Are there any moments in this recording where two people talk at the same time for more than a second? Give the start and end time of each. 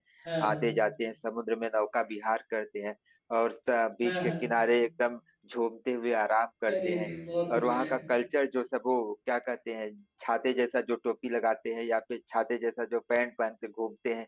none

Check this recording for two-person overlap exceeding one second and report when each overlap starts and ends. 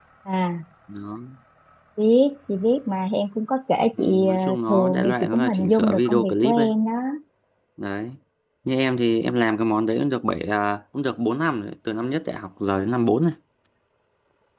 4.0-6.7

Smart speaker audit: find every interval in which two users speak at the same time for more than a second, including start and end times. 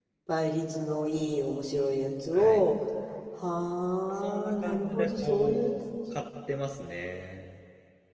4.2-5.8

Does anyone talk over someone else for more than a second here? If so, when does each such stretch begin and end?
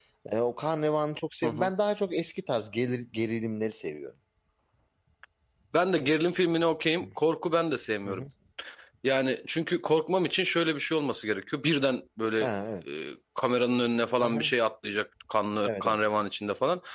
none

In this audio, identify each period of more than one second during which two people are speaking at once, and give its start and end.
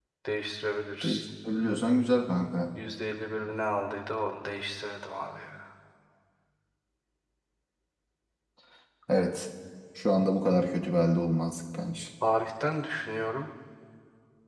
none

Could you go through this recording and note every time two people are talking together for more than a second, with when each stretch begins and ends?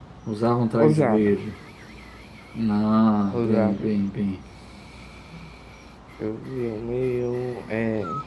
none

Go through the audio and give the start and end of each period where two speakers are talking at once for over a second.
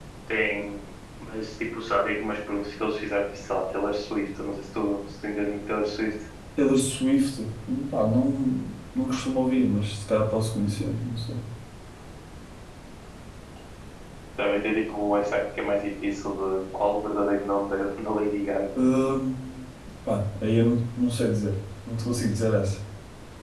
none

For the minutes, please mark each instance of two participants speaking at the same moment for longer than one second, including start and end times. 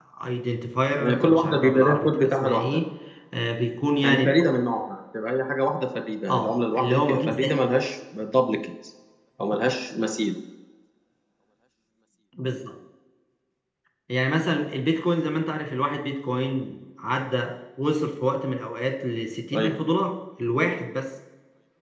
1.0-2.6, 6.3-7.5

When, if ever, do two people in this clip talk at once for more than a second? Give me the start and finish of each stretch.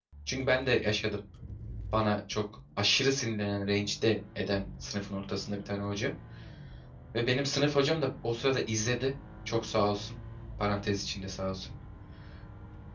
none

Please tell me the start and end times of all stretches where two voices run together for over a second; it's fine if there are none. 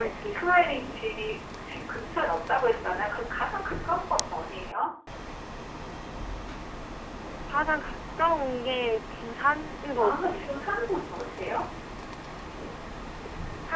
none

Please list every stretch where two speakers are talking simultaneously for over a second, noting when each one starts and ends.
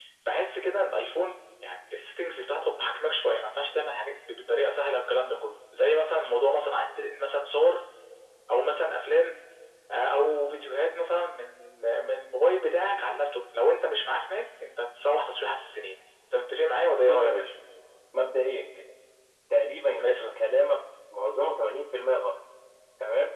none

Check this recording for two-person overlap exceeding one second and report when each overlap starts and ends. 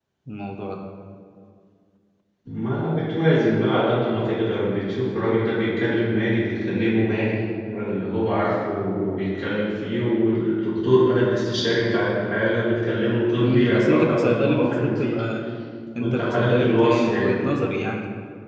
13.4-15.2, 16.0-17.3

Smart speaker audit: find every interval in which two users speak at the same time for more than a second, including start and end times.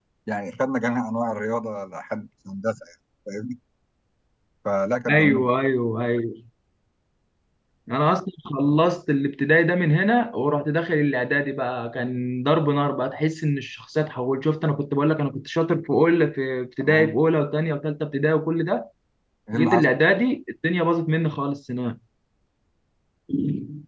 none

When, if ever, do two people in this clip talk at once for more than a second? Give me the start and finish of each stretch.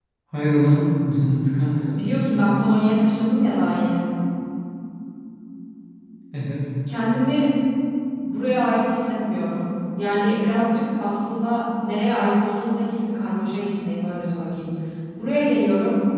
none

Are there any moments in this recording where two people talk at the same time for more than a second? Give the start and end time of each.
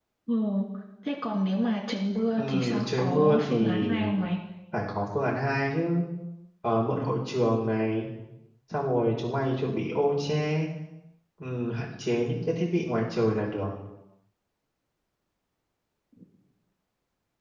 2.4-3.8

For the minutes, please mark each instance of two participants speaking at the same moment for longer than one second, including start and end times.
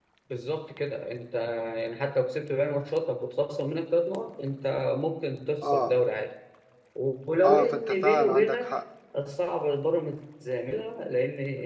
7.4-8.8

